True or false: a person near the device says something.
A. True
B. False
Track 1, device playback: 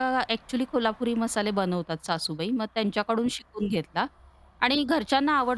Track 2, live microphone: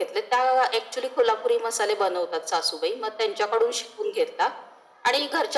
B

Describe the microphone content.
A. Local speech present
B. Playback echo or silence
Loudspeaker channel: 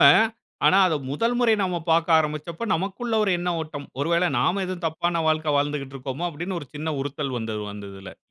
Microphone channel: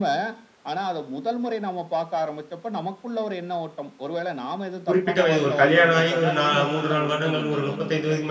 A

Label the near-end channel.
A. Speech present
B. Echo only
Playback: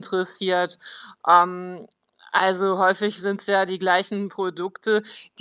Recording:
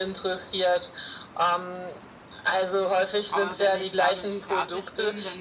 A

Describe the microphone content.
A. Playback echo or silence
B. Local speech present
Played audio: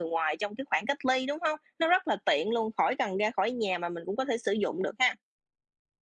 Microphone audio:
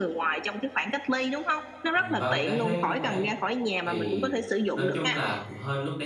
B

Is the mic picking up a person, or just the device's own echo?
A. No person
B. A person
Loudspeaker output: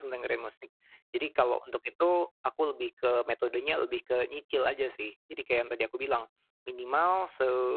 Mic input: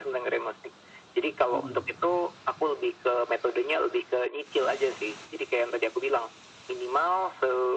B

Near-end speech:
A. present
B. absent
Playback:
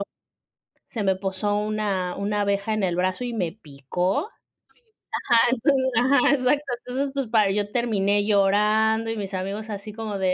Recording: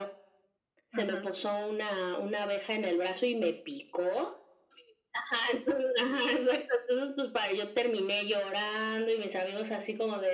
A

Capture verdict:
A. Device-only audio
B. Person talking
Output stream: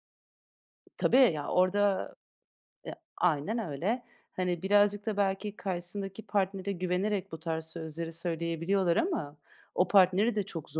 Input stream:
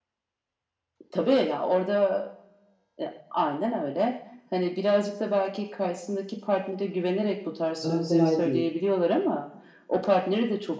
B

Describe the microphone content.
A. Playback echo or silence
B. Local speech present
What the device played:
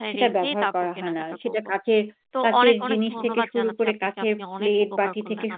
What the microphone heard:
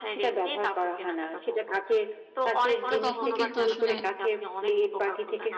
B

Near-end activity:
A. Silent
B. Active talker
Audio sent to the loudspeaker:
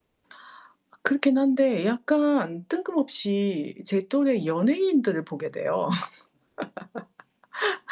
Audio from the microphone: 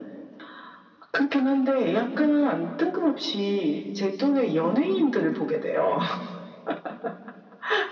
A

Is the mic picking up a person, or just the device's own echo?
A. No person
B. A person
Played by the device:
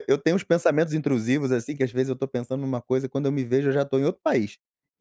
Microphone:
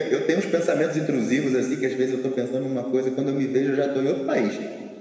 A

